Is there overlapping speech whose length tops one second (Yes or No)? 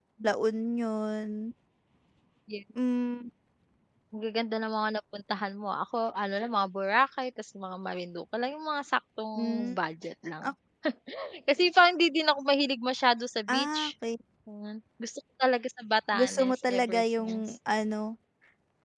Yes